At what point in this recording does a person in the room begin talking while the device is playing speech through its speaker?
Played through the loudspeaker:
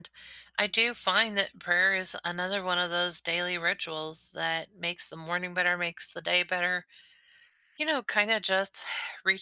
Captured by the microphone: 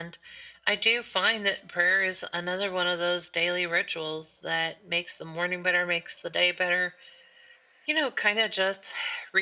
none

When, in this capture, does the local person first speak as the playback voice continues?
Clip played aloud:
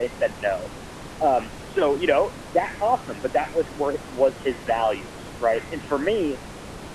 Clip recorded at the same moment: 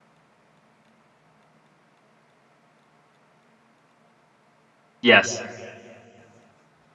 5.0 s

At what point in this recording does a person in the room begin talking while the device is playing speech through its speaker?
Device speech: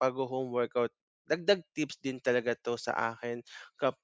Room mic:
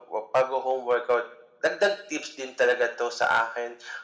none

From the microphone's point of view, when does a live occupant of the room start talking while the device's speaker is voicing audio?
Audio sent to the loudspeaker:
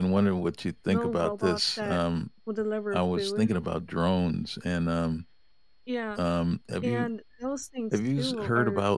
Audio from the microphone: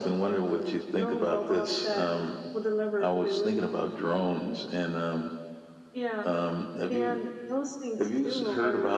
none

